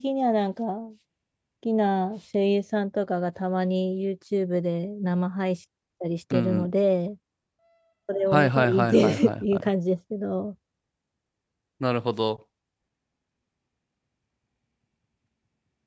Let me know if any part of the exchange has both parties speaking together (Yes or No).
Yes